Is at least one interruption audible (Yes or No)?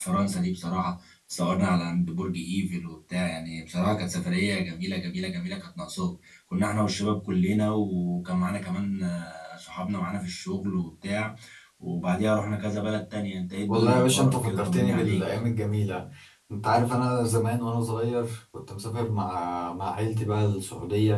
Yes